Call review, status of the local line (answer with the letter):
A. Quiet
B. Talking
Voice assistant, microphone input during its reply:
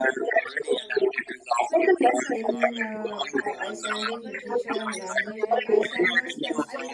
B